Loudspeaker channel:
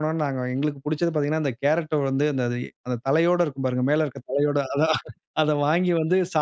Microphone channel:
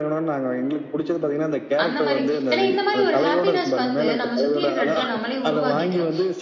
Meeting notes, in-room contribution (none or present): present